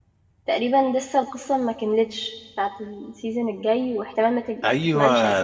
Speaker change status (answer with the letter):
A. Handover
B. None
A